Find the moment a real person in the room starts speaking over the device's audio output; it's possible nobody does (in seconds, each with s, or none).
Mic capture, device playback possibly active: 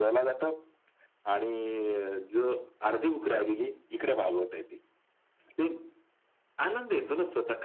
none